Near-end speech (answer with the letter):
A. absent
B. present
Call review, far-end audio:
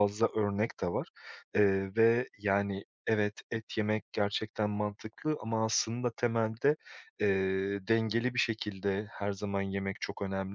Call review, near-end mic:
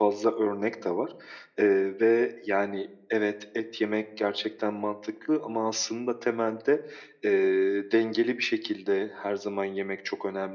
A